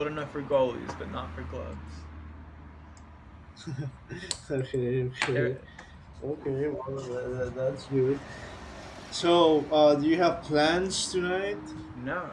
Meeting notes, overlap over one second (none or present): none